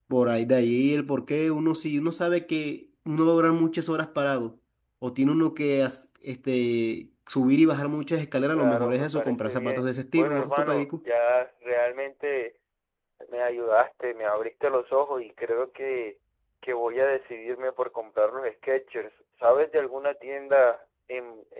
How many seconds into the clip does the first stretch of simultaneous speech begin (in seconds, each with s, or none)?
8.5 s